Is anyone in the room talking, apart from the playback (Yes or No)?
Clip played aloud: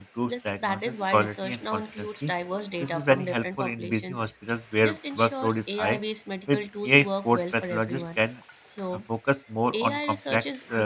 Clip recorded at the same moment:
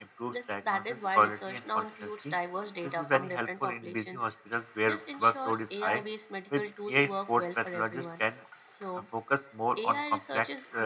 No